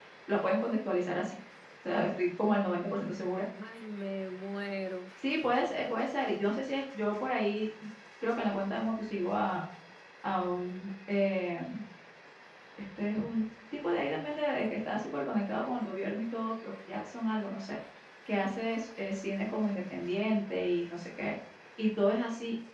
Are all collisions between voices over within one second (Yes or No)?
Yes